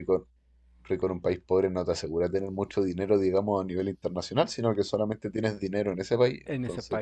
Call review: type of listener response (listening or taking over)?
taking over